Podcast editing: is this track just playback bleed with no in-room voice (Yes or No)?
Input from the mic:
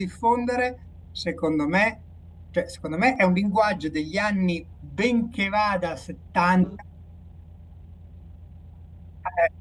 No